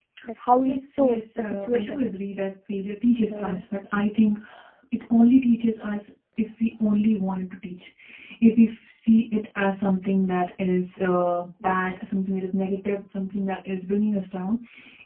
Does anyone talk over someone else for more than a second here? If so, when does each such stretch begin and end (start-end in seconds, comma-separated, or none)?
0.6-2.0